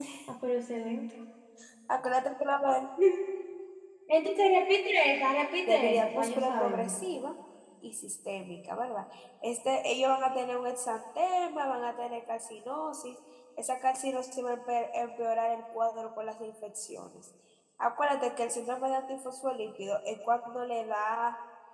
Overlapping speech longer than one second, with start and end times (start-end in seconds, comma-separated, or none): 5.7-7.0